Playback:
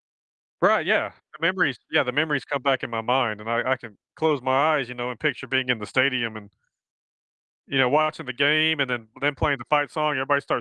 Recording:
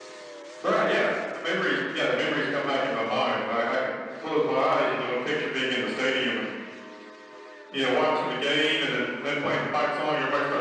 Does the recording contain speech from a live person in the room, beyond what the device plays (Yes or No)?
No